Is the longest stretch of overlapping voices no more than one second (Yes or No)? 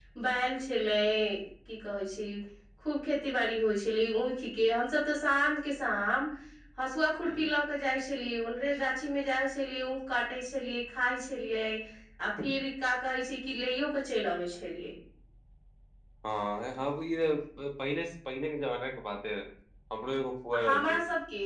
Yes